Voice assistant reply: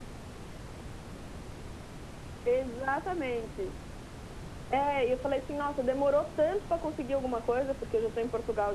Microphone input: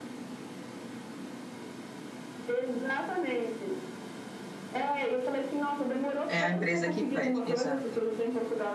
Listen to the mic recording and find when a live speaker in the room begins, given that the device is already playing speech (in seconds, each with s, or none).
6.3 s